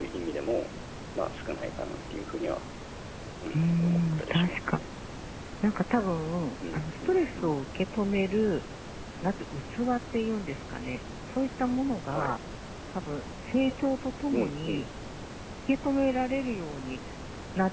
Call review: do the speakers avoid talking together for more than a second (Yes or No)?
No